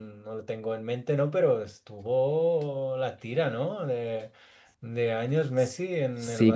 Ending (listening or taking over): taking over